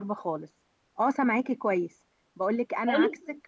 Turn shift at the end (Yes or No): No